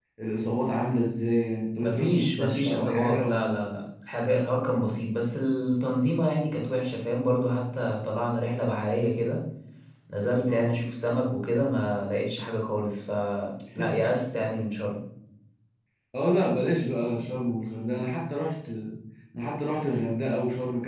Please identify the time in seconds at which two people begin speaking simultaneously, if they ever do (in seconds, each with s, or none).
1.8 s